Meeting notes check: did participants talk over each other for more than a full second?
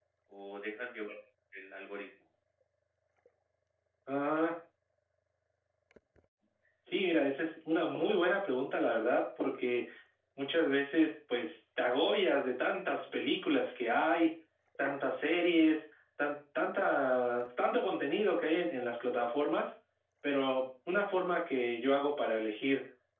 No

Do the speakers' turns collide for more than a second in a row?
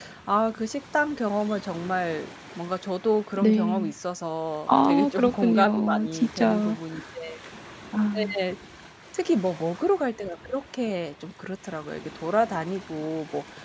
Yes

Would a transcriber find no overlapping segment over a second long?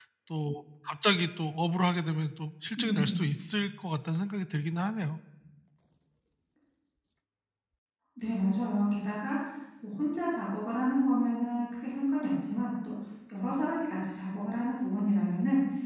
Yes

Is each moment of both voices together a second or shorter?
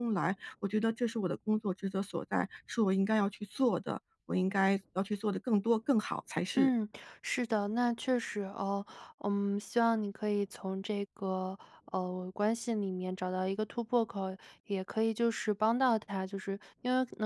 Yes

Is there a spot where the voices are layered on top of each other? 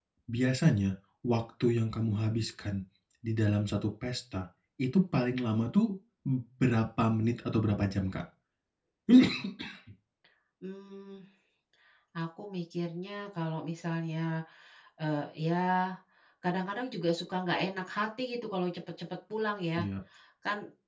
No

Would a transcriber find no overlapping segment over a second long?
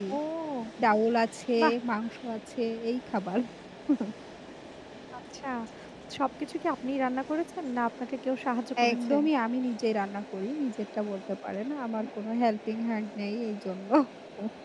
Yes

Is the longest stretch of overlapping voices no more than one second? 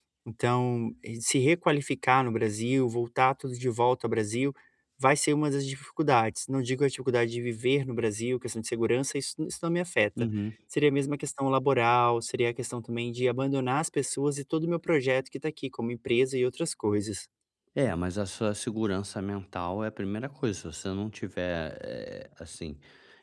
Yes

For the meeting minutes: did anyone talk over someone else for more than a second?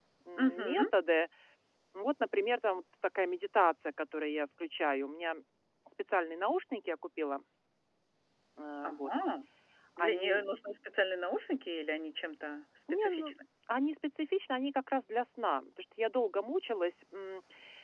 No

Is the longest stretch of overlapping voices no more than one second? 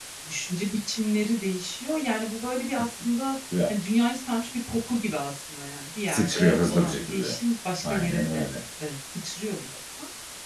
No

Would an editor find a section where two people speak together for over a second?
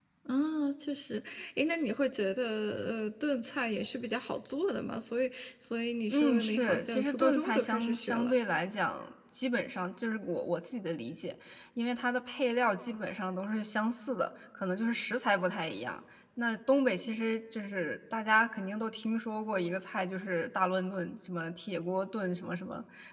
Yes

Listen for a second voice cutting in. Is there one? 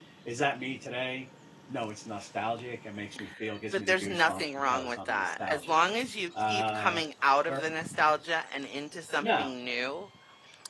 Yes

